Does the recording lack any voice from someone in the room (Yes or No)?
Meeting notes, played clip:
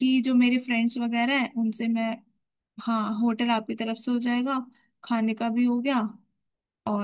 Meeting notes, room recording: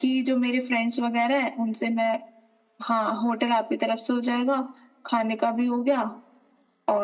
Yes